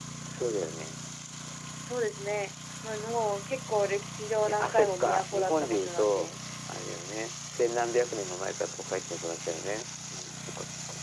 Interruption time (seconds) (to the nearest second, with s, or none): 4 s